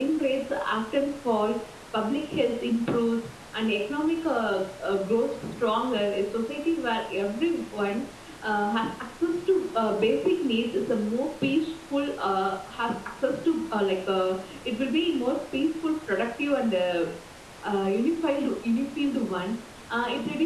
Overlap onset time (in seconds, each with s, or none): none